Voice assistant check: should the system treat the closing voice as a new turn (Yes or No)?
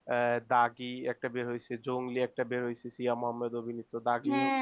Yes